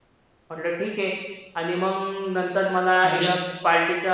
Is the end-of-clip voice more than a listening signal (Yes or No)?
No